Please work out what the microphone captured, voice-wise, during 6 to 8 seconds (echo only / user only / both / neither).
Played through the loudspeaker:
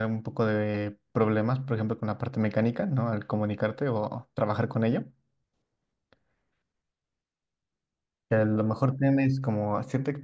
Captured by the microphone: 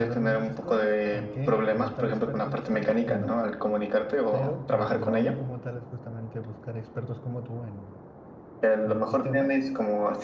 user only